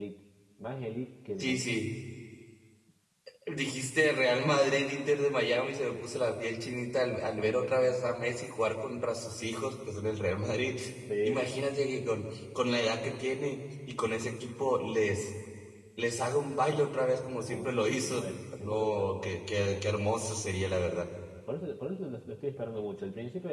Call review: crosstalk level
present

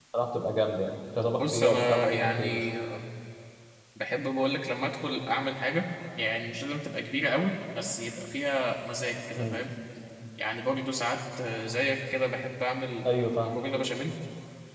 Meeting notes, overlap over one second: present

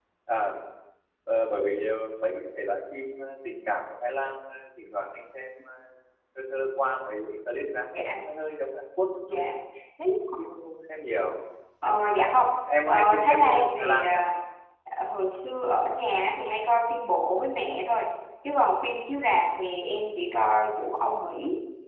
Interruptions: present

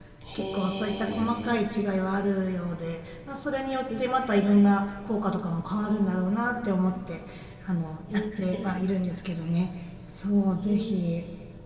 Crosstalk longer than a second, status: present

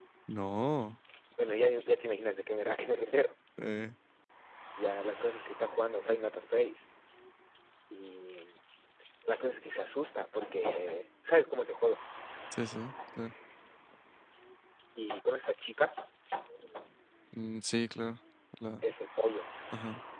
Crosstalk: none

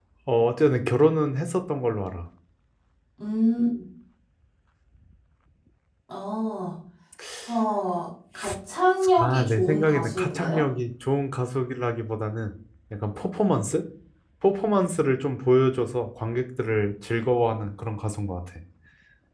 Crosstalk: present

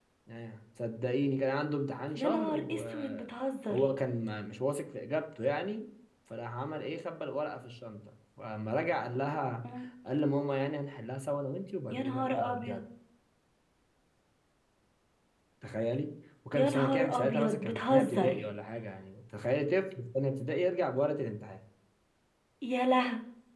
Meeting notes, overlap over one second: present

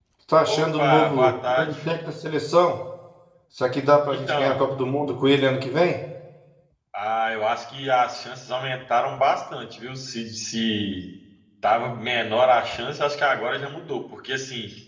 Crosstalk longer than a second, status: present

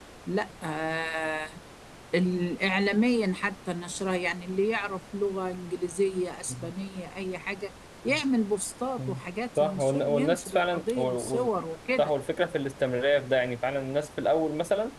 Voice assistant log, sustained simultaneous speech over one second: present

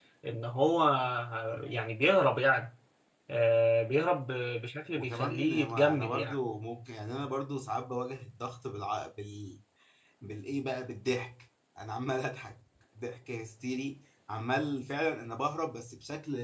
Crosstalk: present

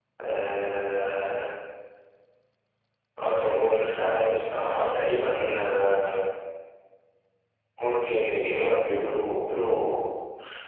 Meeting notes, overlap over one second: none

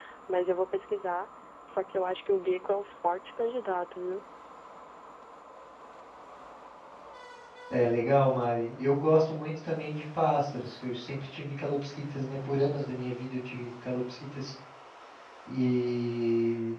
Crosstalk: none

